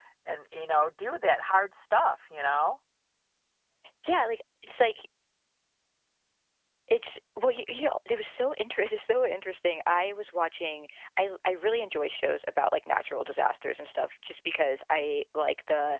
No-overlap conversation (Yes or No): Yes